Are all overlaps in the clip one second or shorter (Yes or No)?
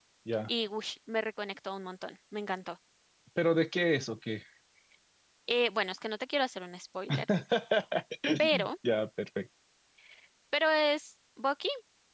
Yes